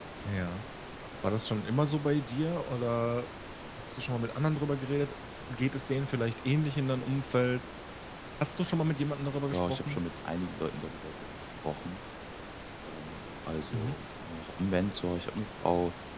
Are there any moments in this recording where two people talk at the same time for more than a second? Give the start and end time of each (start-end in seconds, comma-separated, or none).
none